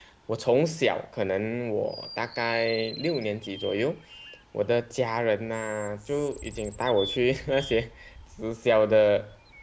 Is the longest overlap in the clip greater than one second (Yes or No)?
No